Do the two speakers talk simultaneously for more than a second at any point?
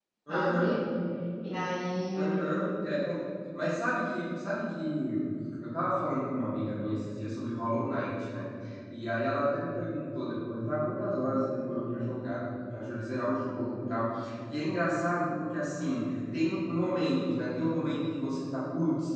No

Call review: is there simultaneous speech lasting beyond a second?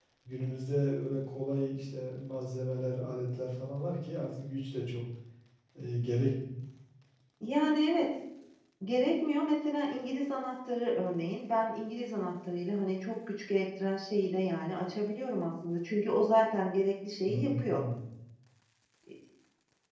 No

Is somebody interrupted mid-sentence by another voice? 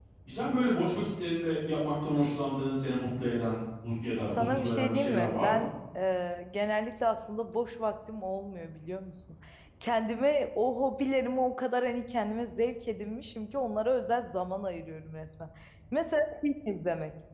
Yes, from 4.2 s

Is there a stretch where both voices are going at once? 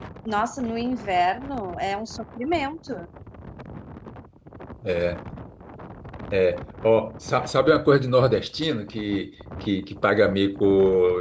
No

